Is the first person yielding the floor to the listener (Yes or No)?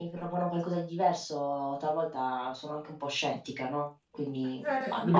Yes